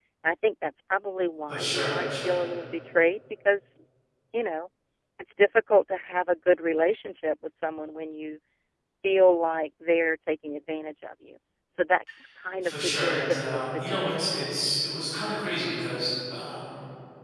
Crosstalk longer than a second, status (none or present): present